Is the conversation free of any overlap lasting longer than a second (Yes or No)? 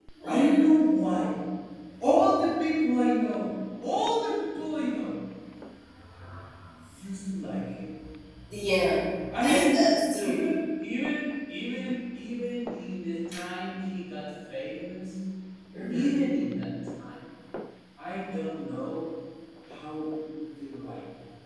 Yes